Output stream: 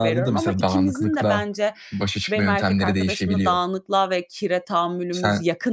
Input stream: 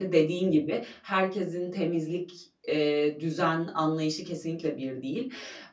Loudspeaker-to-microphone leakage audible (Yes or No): No